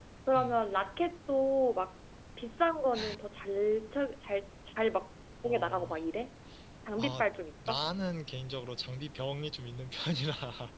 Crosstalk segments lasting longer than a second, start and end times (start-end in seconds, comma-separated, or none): none